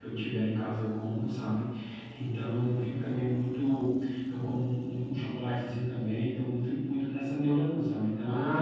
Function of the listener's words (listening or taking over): taking over